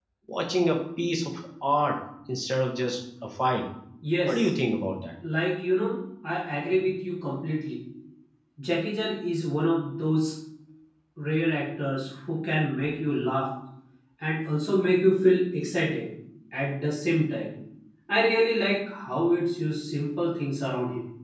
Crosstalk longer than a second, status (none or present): none